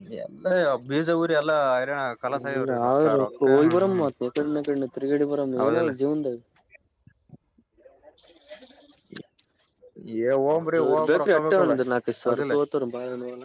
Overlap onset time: 2 s

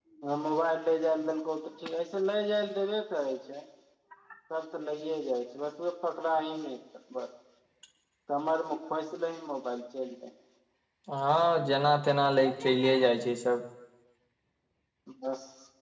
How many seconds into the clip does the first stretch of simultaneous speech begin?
none

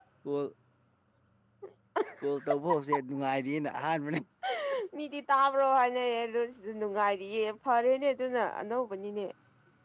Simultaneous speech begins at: none

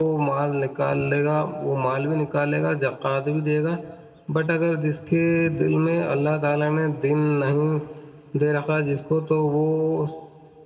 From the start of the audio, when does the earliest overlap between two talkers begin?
none

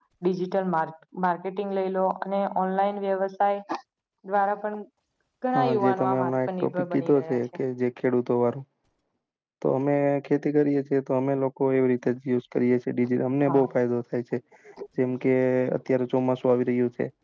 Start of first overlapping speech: 6 s

